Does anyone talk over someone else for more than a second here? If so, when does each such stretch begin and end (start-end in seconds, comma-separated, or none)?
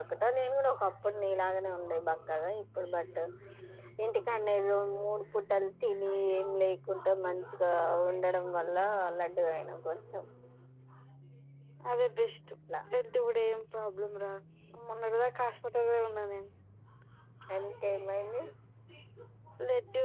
none